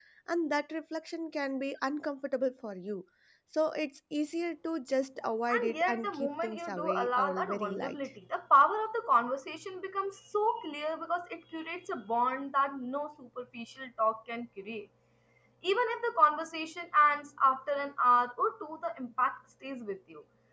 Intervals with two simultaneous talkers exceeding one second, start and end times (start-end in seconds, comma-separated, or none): 5.5-8.0